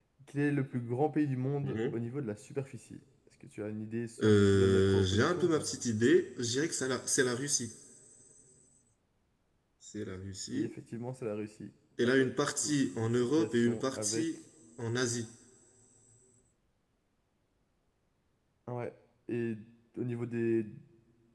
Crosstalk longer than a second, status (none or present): present